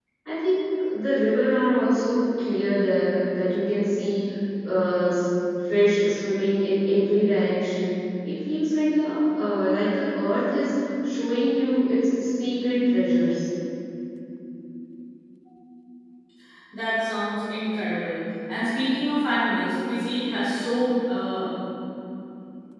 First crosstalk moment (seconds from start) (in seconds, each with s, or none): none